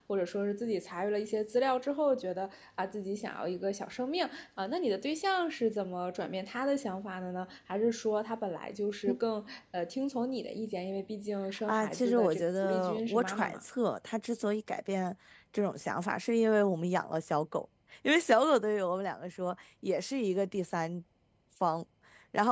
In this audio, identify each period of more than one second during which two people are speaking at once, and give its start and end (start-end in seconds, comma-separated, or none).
11.7-13.6